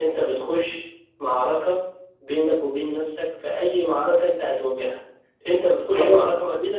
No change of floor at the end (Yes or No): Yes